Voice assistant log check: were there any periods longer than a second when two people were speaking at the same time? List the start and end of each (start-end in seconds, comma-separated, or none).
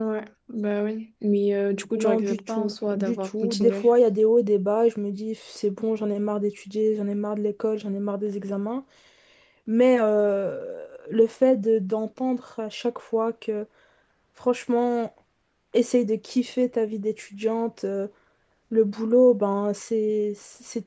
1.9-3.9